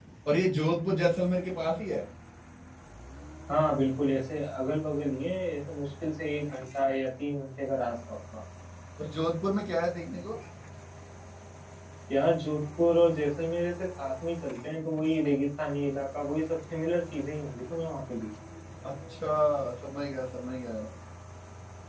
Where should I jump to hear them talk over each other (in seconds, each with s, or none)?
none